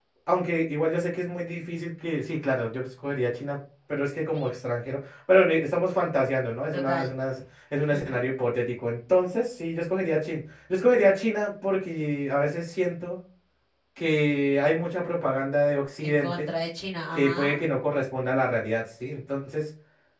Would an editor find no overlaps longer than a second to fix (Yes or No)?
Yes